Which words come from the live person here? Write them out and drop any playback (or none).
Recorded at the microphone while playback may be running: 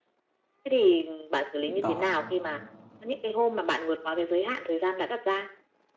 đó,